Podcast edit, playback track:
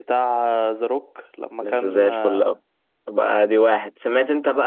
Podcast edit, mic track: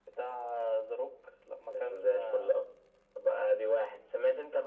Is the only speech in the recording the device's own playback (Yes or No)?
Yes